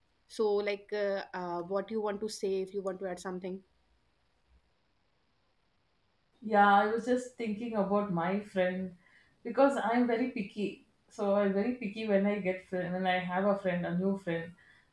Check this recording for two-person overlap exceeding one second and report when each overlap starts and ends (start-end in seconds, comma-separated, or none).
none